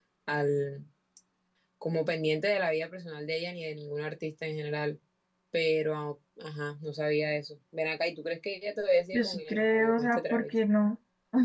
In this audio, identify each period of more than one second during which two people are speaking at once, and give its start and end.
9.1-10.4

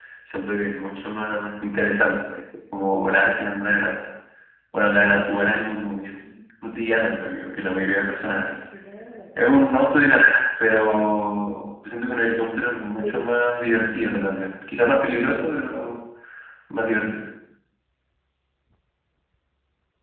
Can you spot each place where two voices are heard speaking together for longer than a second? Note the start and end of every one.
none

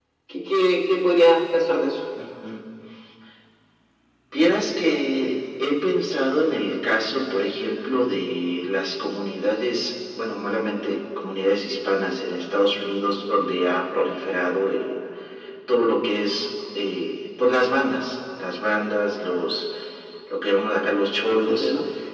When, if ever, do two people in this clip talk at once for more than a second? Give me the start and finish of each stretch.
none

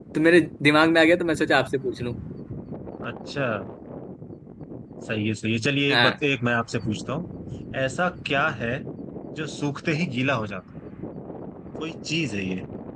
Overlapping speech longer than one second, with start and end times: none

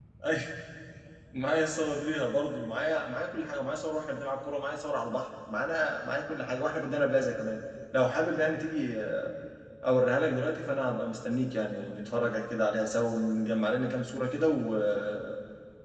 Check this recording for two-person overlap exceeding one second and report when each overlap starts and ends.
none

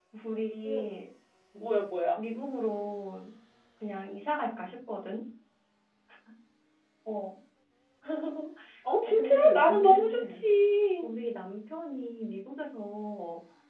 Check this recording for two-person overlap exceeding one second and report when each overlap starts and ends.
9.0-10.5

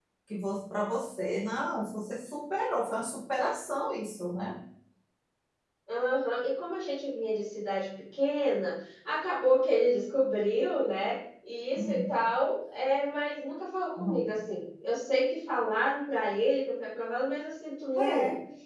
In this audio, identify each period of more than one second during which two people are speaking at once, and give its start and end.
none

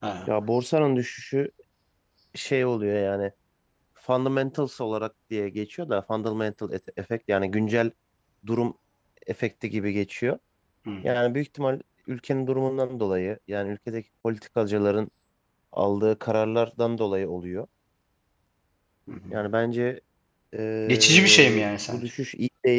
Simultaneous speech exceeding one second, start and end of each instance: 20.9-22.1

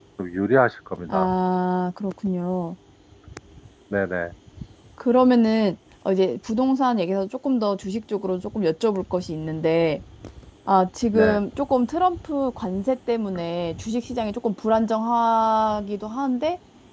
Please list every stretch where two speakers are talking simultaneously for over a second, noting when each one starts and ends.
none

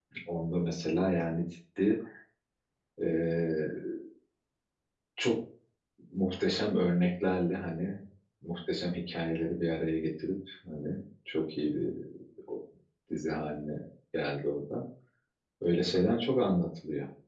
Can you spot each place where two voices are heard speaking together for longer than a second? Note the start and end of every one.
none

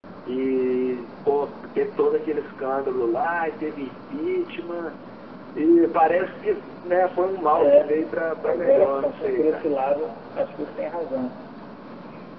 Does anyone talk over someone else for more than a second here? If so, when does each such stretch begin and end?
8.4-9.7

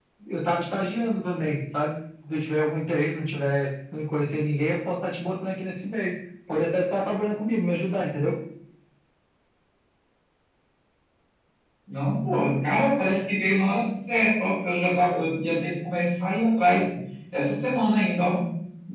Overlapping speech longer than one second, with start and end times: none

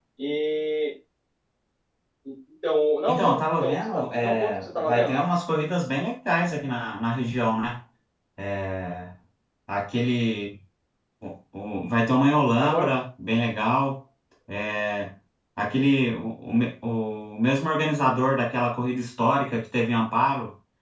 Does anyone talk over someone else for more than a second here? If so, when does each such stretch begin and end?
3.1-5.2

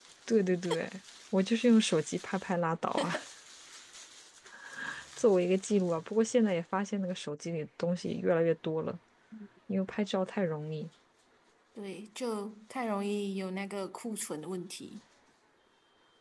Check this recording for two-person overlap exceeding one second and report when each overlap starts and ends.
none

